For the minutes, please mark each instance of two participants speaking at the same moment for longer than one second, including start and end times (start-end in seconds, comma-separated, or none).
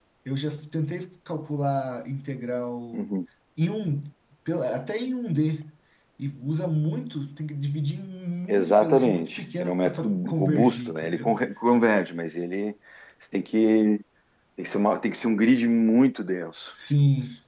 8.5-11.3